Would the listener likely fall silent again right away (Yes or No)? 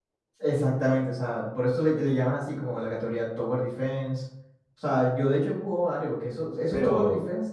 Yes